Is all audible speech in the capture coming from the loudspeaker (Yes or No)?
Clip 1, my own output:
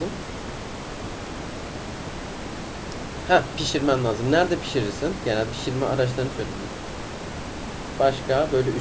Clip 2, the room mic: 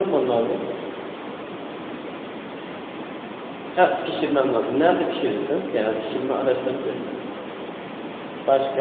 Yes